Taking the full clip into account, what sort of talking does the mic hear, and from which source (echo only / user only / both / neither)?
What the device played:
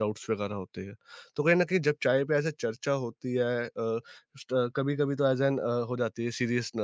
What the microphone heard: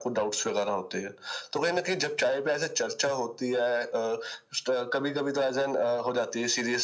echo only